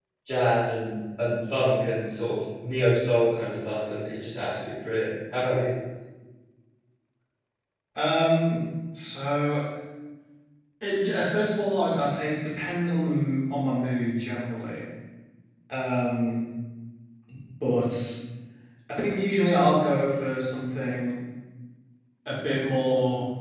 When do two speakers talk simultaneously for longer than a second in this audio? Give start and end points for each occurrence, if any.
none

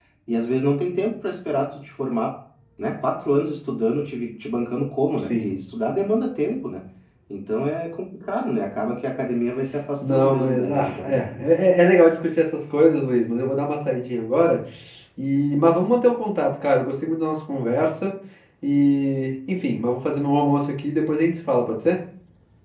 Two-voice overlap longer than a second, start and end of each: 10.0-11.3

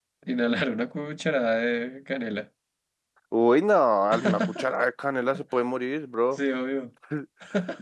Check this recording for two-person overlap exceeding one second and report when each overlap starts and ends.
none

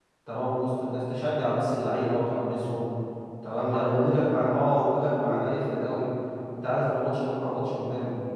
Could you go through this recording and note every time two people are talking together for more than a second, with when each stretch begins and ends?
3.6-6.1

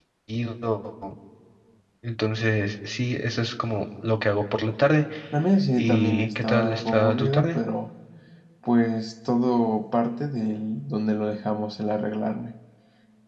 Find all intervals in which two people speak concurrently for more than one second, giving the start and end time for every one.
5.7-7.6

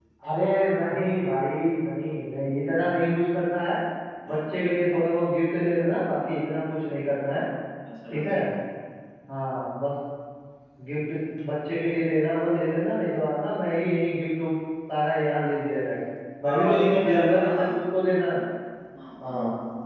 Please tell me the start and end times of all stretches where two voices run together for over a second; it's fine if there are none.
16.4-17.7

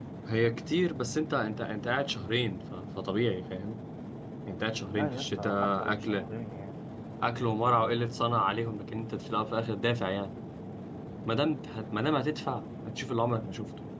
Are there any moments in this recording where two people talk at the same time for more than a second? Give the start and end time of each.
4.9-6.3

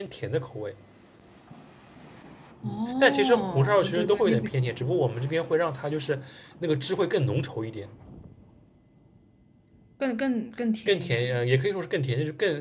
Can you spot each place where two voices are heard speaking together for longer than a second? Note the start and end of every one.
2.6-4.5

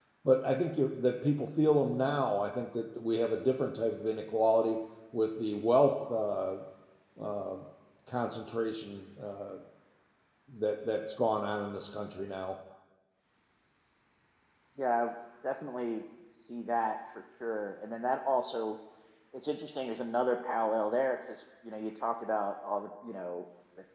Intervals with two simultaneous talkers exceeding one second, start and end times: none

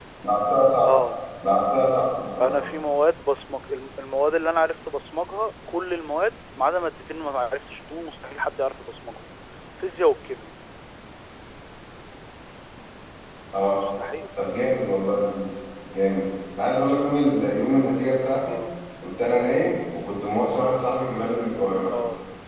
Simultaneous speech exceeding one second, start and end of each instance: none

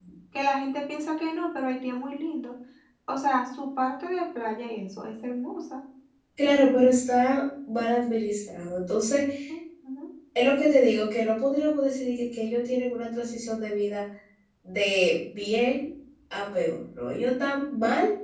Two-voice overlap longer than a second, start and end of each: none

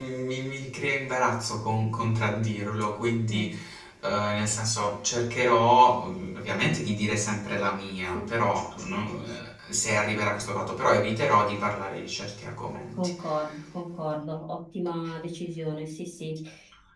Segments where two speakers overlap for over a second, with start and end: none

